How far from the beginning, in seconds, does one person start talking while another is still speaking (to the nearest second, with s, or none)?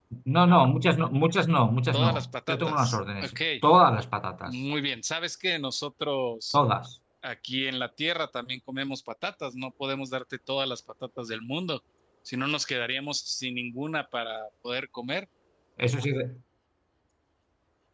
2 s